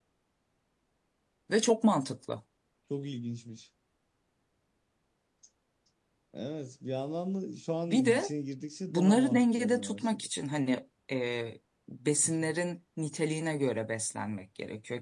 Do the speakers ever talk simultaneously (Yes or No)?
Yes